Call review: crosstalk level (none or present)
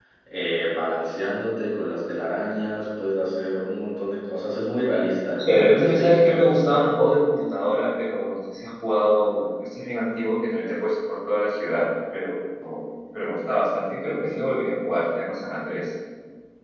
present